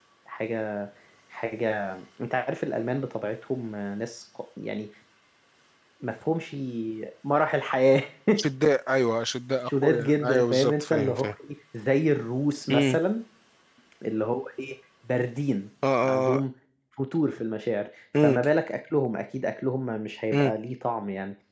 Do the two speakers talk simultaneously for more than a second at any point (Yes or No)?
Yes